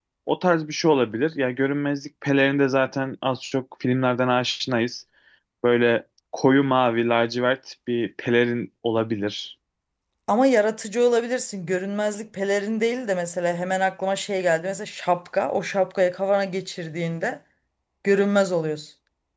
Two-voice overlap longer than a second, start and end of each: none

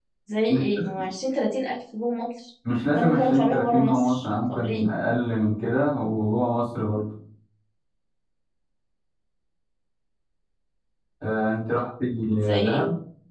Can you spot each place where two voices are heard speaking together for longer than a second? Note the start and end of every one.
2.9-4.8

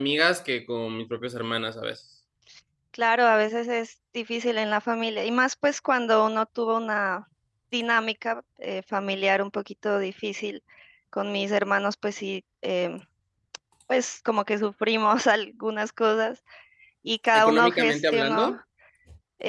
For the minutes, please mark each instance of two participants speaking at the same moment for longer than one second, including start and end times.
17.3-18.6

